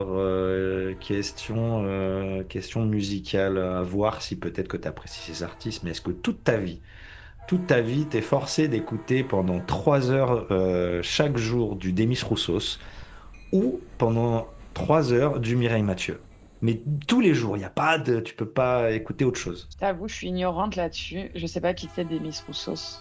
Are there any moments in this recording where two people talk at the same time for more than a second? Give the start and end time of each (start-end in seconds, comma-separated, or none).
none